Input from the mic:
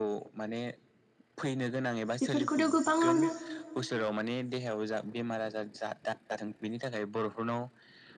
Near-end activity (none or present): present